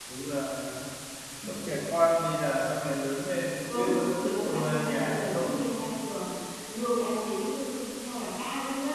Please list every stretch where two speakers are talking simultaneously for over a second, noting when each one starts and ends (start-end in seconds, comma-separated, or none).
3.7-5.7